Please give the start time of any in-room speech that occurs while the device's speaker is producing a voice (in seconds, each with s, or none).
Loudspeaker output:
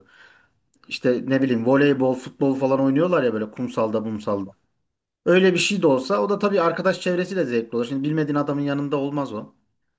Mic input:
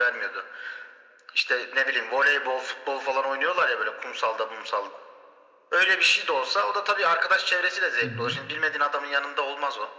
8.0 s